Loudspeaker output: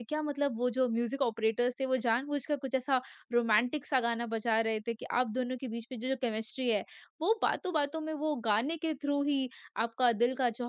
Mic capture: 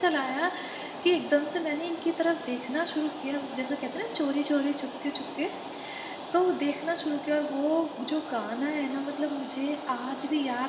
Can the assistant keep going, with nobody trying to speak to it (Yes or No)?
No